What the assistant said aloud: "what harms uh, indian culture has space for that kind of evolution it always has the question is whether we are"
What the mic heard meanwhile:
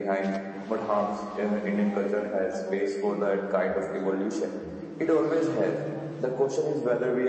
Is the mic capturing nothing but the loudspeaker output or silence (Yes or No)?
No